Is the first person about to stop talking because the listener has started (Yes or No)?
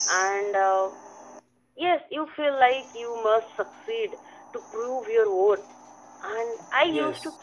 No